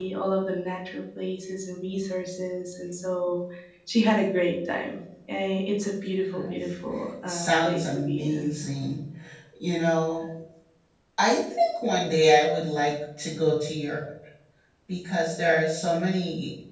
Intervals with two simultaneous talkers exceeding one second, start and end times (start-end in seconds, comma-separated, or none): 7.2-8.6